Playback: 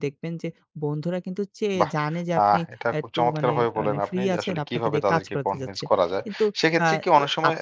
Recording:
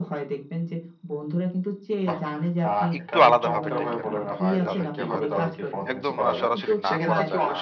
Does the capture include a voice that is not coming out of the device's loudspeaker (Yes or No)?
Yes